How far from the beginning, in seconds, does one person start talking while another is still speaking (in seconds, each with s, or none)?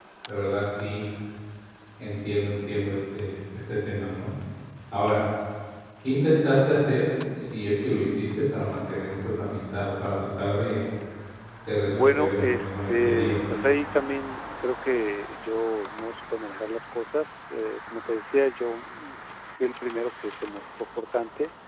11.9 s